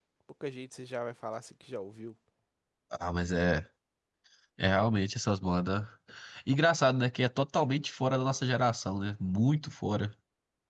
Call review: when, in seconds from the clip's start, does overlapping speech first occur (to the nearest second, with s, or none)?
none